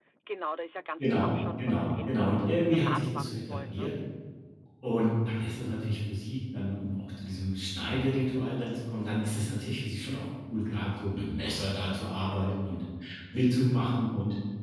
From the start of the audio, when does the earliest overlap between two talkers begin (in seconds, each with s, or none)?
1.0 s